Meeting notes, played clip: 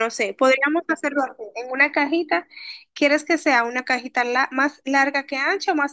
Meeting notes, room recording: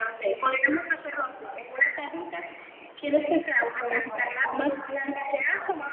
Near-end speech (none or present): present